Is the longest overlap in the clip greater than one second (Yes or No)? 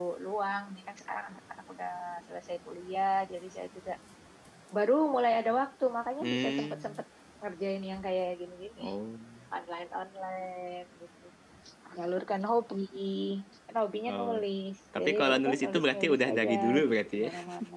Yes